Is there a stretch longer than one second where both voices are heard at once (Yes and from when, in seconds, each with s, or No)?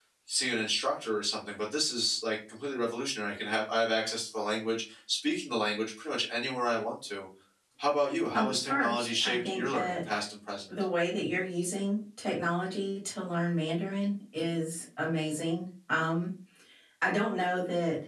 Yes, from 8.3 s